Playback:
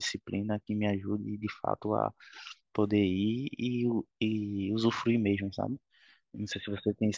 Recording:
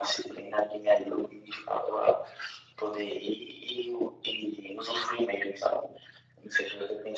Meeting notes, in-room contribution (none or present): none